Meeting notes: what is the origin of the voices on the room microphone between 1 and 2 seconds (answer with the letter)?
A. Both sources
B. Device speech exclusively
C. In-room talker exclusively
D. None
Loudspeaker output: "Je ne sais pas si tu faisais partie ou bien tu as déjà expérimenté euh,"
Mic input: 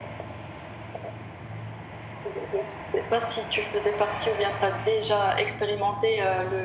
D